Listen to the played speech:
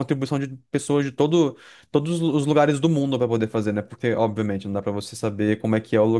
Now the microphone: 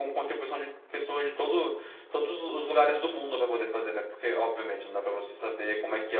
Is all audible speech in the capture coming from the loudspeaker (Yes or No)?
Yes